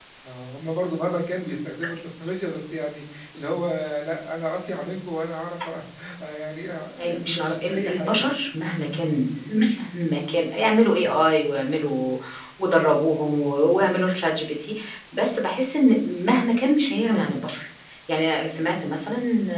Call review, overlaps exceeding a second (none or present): present